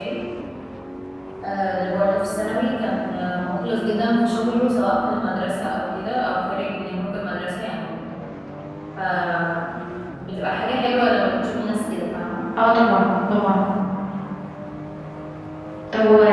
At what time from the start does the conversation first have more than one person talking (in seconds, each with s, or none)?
none